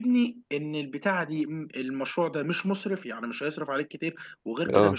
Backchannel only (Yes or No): Yes